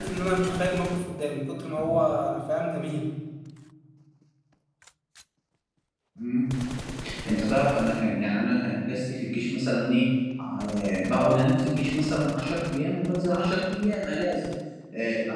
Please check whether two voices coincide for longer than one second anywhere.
No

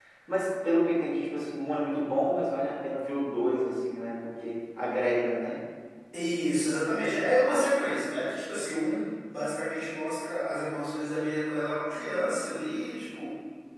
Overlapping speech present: No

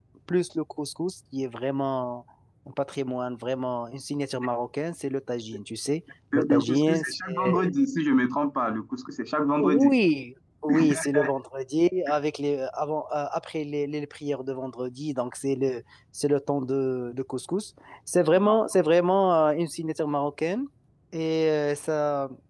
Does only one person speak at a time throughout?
No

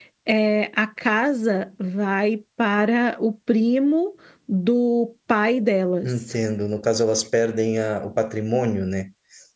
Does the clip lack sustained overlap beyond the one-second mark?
Yes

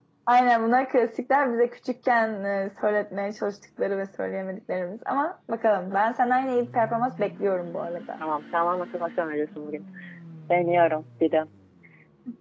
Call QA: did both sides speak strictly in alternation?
Yes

